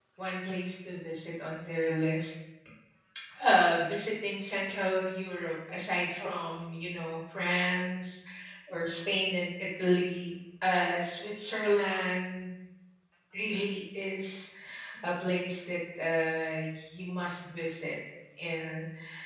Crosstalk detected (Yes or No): No